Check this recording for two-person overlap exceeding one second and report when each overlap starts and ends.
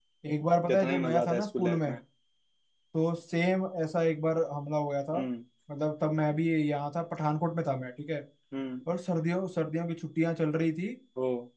0.7-1.9

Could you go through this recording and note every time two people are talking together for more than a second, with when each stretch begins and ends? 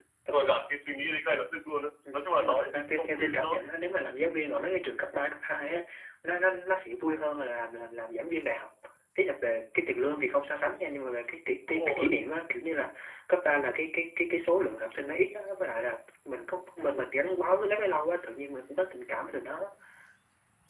2.1-3.6

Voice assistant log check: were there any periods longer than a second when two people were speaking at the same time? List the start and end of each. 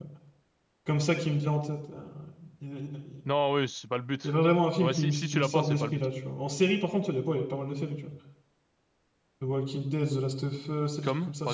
4.8-6.0

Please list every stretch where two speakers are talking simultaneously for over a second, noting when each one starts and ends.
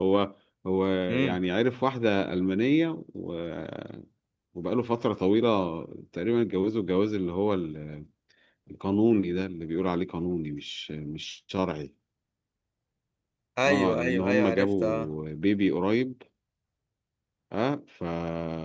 13.7-15.1

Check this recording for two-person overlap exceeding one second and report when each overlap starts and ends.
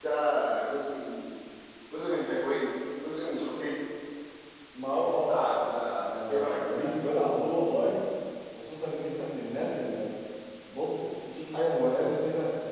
5.1-6.9

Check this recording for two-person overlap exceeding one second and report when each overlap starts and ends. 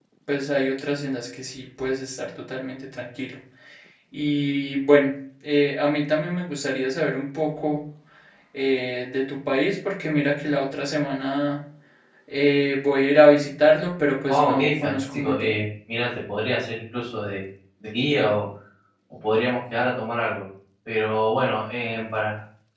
14.3-15.6

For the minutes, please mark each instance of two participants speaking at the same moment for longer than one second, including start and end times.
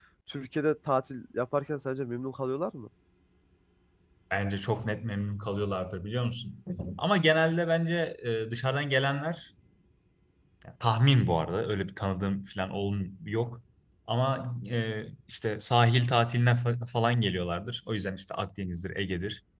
none

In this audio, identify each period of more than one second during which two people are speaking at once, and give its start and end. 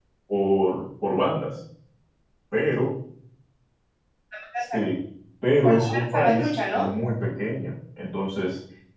5.6-6.9

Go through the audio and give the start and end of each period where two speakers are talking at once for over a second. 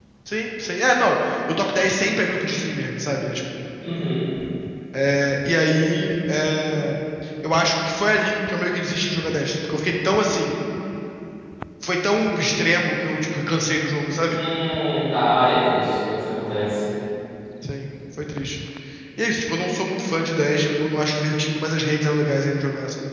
none

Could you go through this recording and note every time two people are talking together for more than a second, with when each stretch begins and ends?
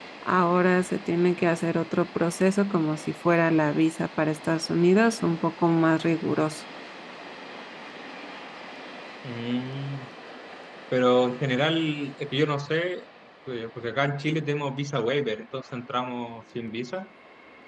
none

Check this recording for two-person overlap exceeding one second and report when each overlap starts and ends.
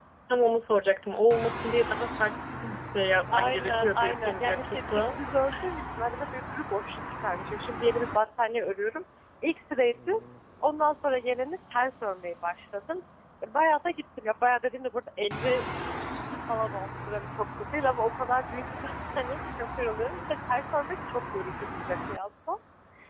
3.3-5.2

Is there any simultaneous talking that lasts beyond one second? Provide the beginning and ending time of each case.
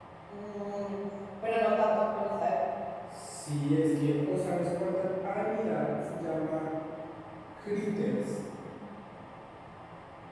none

